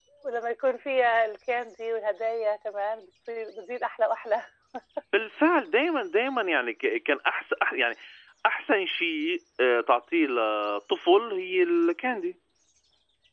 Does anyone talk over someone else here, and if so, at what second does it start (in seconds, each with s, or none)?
none